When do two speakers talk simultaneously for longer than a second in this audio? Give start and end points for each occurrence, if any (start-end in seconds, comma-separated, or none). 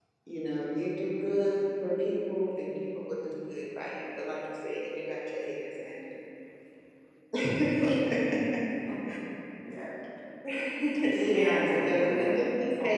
11.0-12.3